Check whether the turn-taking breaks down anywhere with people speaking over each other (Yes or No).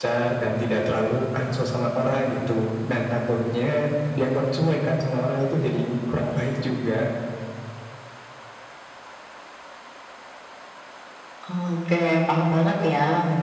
No